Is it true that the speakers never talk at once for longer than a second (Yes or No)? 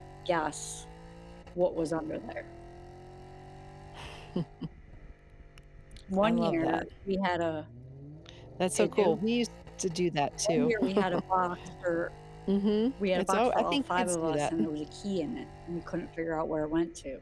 No